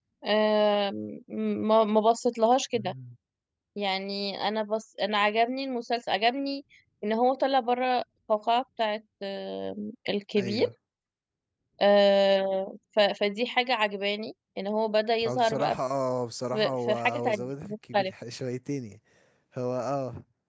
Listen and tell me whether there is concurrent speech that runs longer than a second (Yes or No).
Yes